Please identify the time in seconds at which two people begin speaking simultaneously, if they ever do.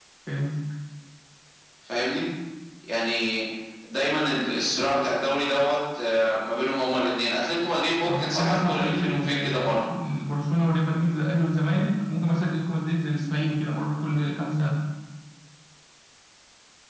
8 s

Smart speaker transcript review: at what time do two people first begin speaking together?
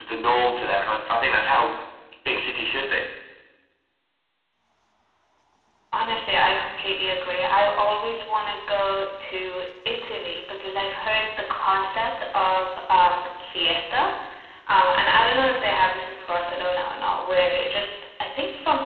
none

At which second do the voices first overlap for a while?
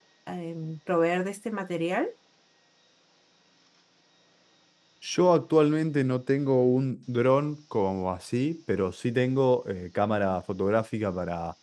none

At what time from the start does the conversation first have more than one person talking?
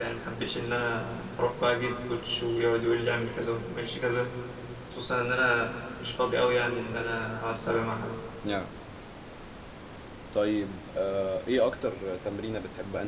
none

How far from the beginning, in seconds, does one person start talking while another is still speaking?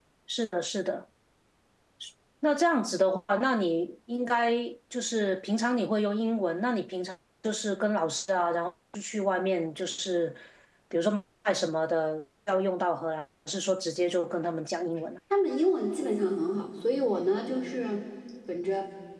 none

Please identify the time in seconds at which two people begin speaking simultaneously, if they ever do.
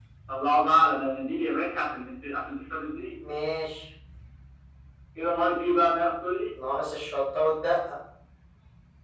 none

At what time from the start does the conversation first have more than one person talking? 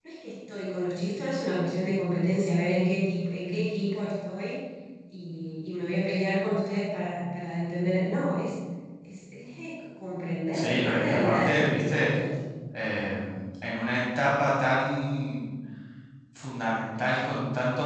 11 s

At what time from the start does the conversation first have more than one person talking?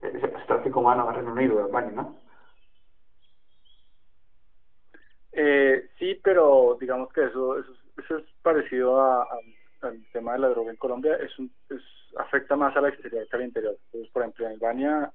none

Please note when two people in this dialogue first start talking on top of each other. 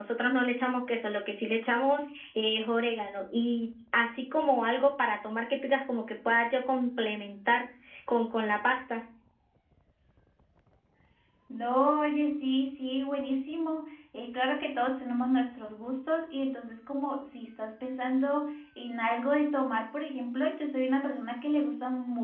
none

